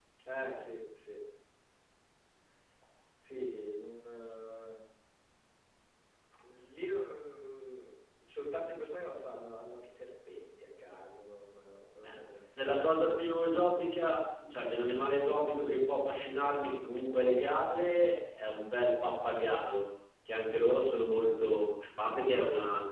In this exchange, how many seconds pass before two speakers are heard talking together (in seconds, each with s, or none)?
12.6 s